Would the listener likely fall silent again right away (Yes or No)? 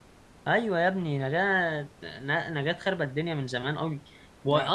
Yes